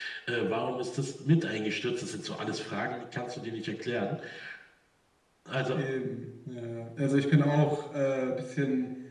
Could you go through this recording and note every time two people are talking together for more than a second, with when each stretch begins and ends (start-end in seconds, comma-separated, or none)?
none